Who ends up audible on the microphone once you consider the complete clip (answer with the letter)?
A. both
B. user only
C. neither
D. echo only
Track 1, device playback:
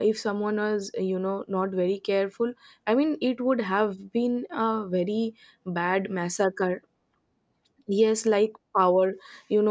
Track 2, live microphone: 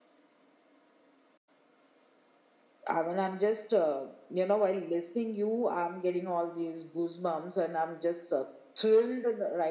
B